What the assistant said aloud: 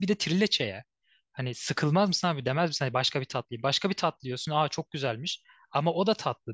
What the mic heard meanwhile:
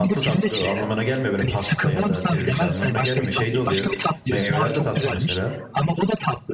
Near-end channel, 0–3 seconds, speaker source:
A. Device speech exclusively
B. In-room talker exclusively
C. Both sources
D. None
C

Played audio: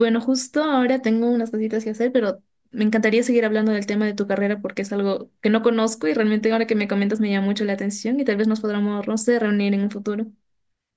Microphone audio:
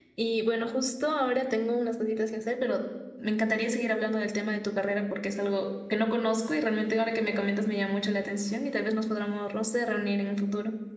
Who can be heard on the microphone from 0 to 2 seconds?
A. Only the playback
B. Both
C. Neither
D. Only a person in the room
A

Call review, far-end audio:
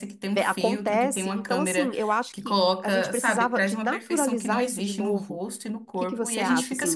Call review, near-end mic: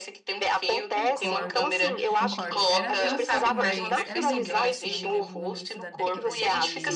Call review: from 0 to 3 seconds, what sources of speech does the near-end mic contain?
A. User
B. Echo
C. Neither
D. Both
D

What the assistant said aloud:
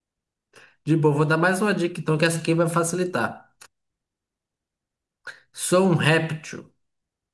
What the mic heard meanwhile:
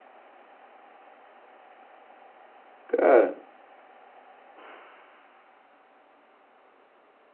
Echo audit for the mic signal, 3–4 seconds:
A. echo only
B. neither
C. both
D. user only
D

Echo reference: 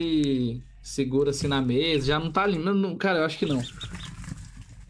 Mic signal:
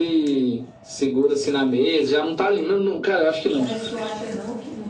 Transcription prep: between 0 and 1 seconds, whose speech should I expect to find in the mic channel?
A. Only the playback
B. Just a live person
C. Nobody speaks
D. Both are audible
A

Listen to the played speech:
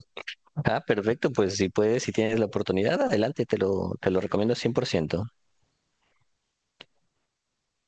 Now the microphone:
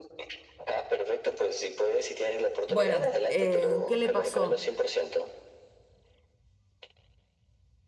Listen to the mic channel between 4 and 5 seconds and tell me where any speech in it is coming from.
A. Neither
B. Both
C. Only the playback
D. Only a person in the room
B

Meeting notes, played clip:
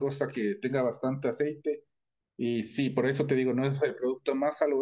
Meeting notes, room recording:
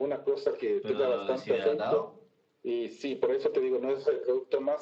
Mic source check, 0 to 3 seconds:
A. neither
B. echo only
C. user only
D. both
D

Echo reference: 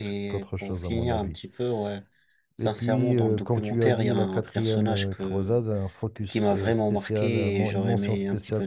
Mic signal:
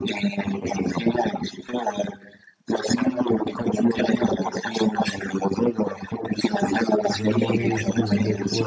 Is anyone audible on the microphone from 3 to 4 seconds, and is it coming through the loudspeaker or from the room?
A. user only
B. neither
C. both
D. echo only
D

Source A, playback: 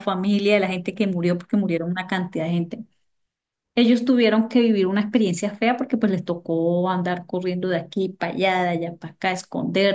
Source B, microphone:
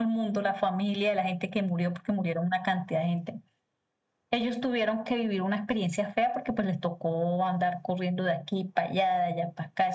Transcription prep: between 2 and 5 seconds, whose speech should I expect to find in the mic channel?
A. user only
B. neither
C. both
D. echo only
D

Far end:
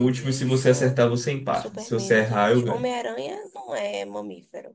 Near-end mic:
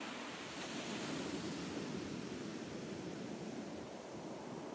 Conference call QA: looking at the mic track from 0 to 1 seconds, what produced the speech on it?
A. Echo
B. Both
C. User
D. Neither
D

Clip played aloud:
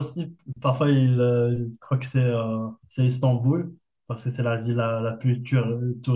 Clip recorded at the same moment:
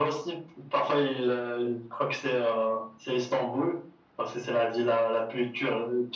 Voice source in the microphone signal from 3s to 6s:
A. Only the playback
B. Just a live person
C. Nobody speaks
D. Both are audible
A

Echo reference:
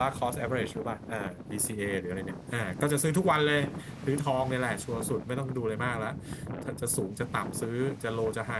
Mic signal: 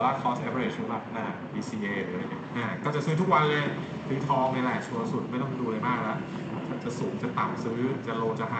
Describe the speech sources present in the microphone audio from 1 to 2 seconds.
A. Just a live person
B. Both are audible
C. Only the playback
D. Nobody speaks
C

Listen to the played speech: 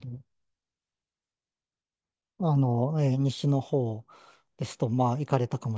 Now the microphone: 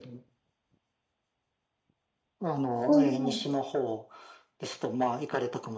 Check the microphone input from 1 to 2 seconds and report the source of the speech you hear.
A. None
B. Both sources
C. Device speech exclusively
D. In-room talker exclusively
A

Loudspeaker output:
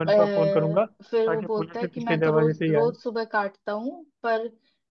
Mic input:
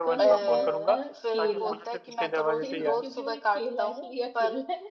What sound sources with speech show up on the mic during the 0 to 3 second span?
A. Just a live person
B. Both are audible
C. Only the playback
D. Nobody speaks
B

